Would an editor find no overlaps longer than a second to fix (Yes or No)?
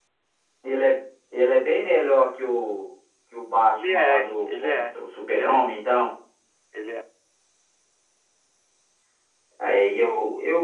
No